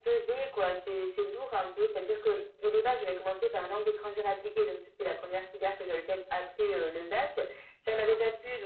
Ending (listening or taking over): listening